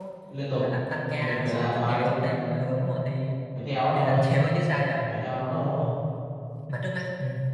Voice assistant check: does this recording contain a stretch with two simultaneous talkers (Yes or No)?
Yes